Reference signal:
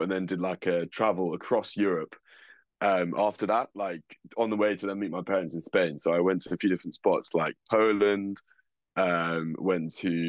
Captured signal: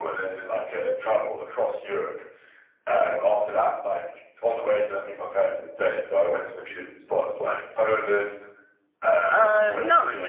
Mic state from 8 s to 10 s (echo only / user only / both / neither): both